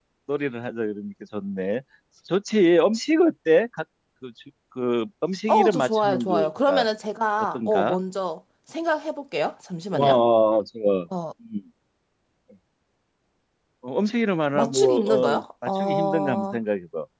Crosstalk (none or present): present